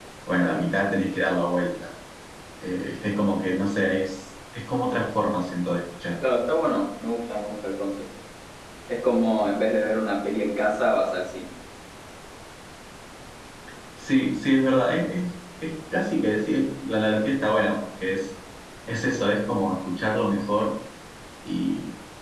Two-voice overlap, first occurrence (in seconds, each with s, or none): none